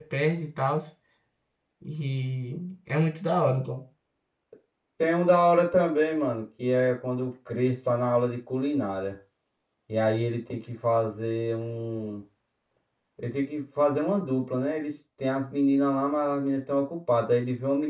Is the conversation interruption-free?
Yes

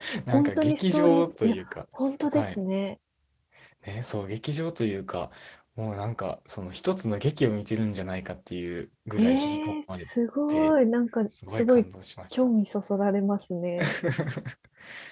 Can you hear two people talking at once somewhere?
Yes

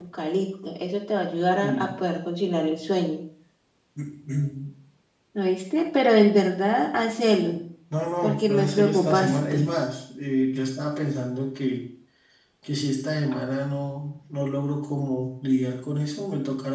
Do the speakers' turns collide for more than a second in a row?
Yes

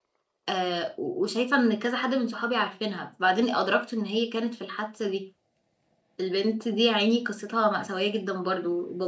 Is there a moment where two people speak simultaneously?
No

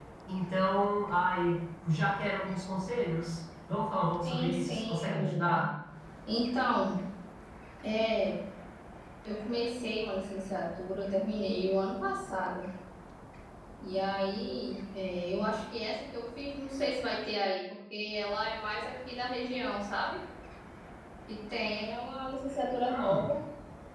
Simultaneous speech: Yes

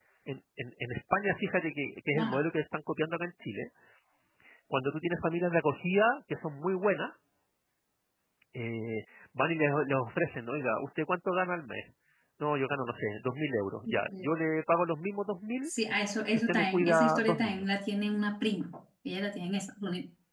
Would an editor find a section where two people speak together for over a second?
Yes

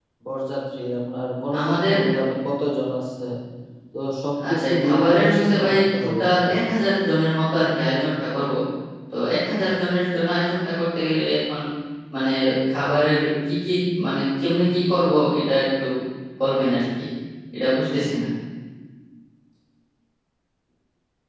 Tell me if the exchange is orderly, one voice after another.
No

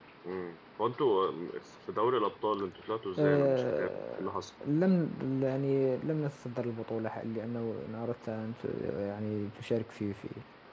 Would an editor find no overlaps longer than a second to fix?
No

